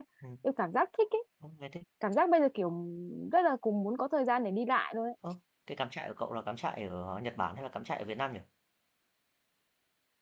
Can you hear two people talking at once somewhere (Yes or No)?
No